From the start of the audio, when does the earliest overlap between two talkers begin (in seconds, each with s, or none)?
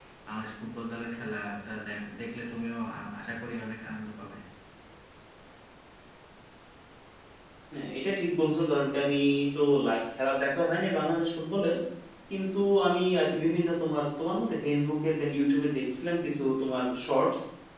none